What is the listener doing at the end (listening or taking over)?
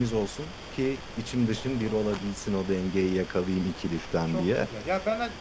taking over